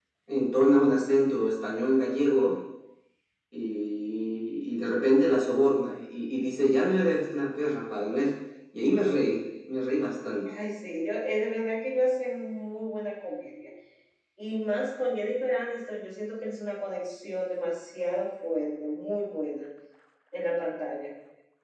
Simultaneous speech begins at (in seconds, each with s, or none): none